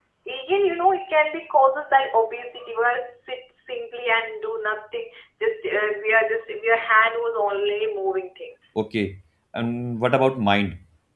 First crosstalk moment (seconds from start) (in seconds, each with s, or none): none